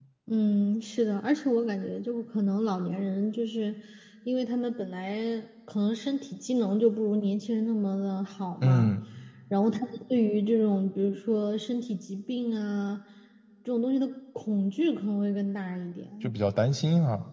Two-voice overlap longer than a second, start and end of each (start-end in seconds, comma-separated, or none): none